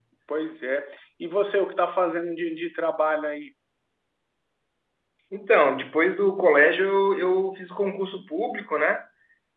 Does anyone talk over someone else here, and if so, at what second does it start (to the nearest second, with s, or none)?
none